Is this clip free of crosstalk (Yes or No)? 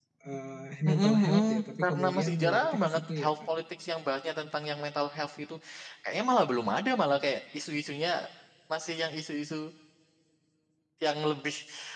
No